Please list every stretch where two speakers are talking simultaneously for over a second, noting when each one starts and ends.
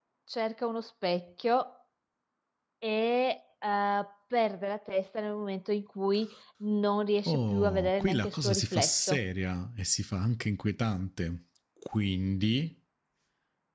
7.3-9.2

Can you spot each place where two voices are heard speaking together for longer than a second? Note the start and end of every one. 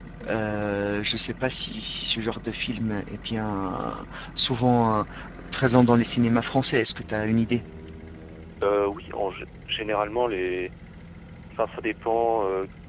none

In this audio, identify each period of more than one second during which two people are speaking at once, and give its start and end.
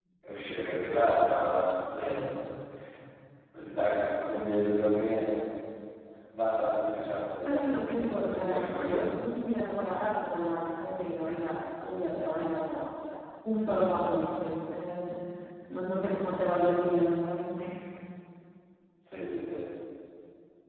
7.5-9.1

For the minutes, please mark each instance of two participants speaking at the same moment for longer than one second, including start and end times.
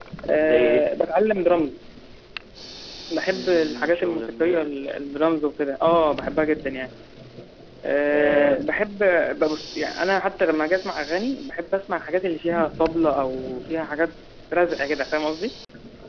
3.3-4.7

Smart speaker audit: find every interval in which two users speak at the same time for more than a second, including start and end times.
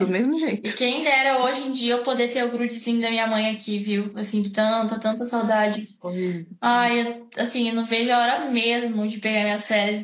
none

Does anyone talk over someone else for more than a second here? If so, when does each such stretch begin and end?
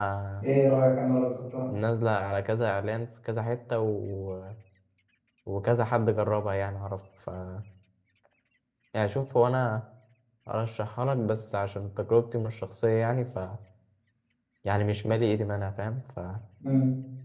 none

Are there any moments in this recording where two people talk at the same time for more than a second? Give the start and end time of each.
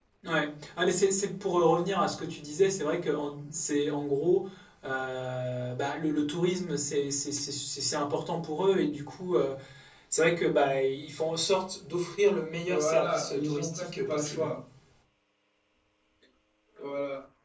12.7-14.5

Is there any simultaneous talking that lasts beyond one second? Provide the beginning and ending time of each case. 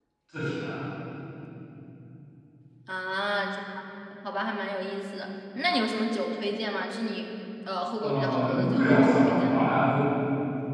8.0-9.7

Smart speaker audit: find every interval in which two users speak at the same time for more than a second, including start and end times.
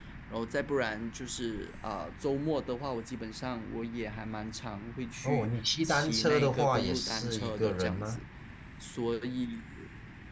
5.2-8.2

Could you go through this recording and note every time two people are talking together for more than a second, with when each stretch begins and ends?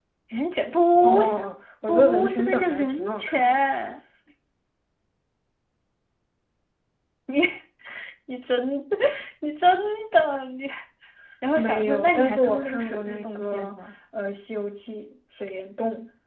1.9-3.6, 11.6-13.7

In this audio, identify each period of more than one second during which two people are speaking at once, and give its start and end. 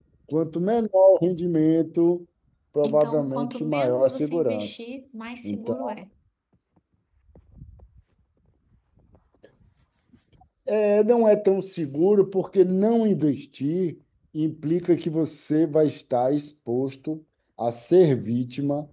2.8-4.8

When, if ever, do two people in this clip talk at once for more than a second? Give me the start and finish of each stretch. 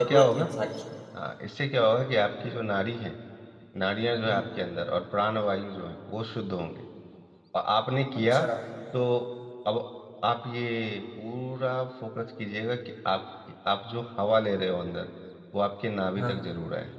none

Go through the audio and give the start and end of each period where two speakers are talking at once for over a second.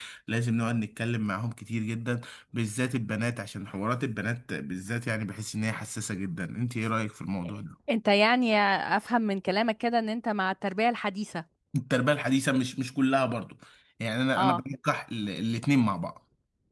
none

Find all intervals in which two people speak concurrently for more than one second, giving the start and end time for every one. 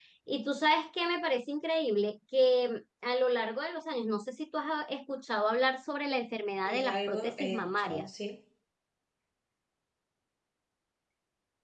6.7-8.1

